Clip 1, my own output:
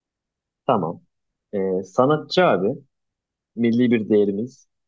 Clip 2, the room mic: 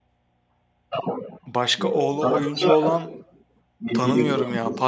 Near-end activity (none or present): present